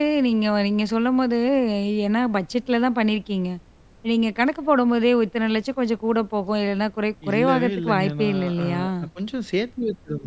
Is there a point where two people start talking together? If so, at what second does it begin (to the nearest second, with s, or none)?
7 s